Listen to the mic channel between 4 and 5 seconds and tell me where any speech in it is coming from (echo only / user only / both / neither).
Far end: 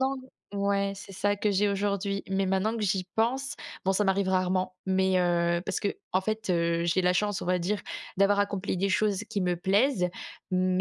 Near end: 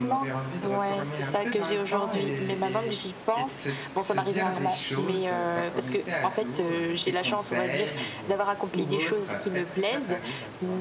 both